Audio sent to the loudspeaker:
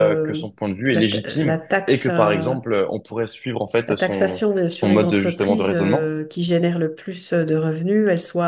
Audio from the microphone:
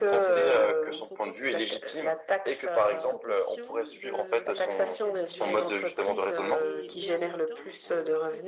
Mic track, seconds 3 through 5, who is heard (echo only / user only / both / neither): both